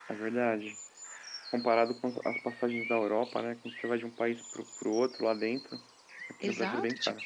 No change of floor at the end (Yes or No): No